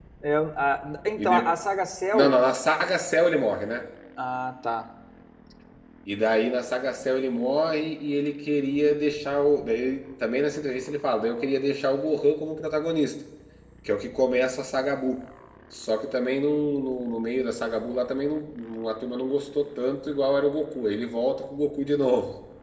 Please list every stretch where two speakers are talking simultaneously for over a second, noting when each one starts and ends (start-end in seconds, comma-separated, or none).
none